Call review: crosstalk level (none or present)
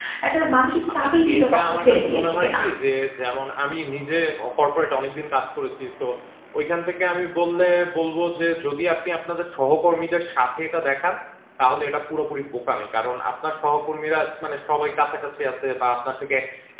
present